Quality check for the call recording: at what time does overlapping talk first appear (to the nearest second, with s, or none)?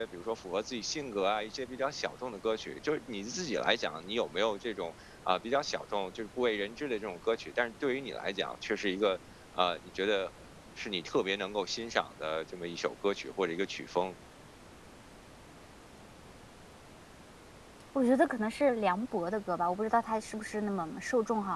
none